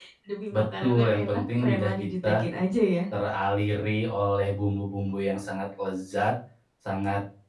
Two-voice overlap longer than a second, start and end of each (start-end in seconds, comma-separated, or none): 0.5-2.4